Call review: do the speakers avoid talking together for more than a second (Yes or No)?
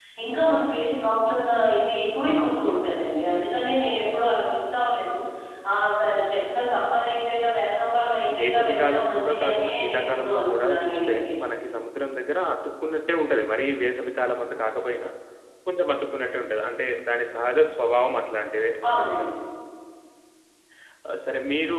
No